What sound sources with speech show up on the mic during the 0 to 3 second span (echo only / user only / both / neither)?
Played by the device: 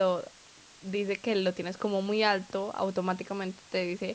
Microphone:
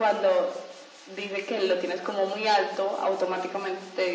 echo only